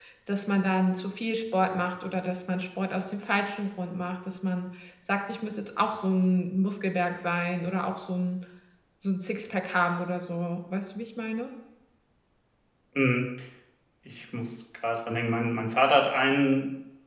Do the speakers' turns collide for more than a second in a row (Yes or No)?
No